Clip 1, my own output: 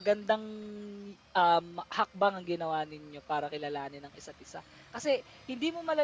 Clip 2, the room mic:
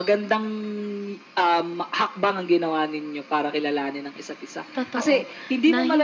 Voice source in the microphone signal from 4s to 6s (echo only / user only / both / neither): both